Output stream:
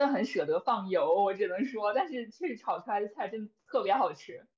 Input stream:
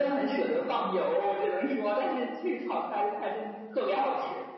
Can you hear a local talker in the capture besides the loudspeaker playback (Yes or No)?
No